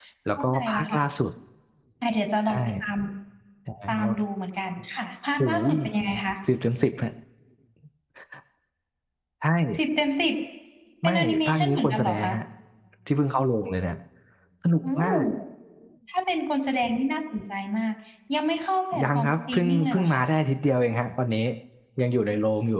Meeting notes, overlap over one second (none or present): present